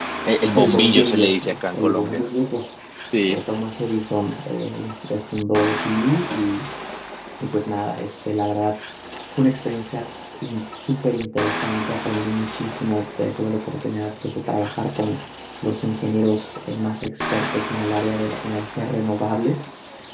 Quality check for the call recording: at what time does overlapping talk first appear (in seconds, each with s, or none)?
0.6 s